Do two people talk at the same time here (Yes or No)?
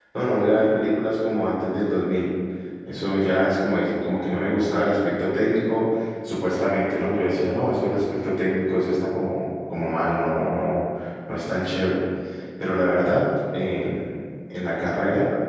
No